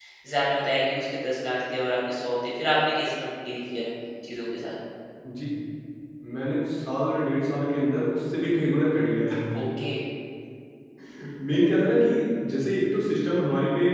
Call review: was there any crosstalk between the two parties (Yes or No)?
No